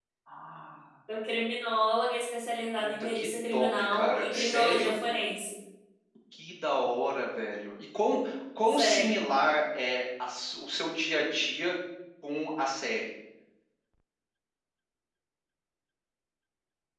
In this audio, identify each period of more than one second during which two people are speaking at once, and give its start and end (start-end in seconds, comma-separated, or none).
2.8-5.0